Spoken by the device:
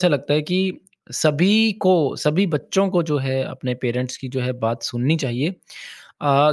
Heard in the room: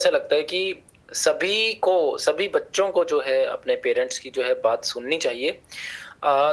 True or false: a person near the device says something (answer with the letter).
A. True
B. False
B